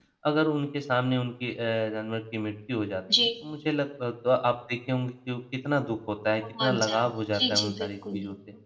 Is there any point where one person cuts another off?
Yes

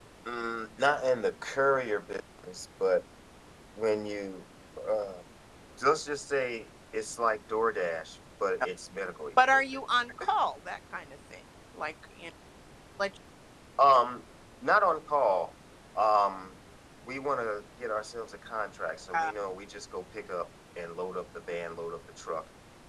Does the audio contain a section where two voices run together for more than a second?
No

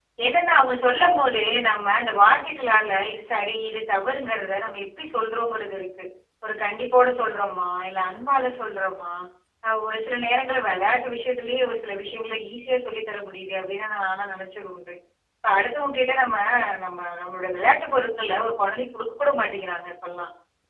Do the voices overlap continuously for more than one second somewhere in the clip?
No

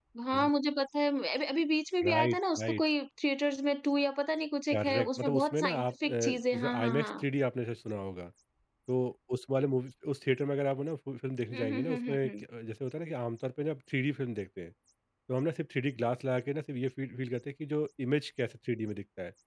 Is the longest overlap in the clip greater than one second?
Yes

